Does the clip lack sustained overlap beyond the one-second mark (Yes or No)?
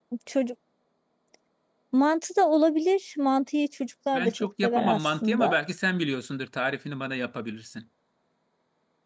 No